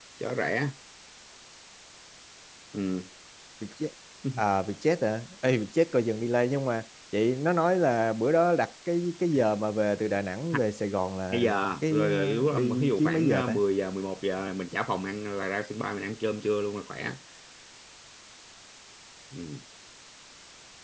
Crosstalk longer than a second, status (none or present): present